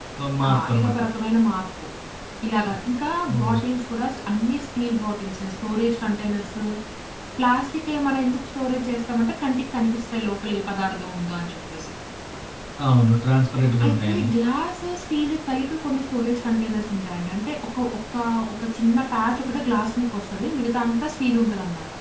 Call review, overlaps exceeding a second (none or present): none